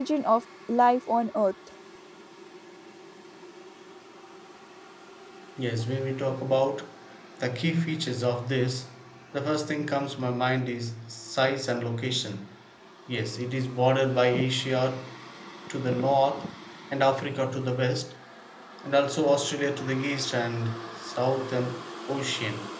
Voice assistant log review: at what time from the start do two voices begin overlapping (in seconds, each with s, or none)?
none